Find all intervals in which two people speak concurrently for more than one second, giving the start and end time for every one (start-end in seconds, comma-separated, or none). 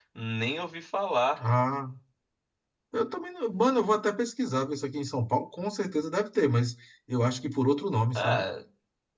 none